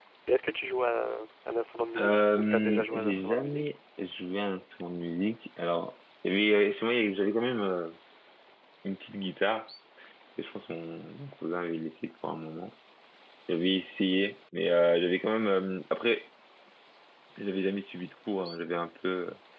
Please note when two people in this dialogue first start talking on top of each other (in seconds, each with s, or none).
1.9 s